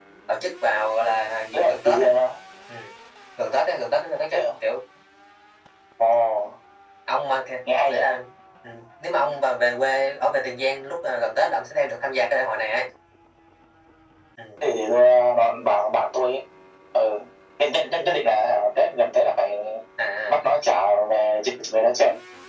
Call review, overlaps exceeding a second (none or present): none